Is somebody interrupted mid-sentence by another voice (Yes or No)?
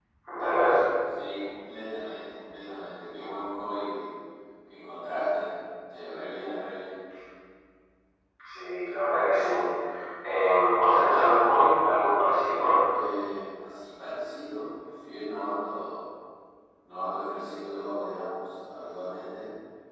No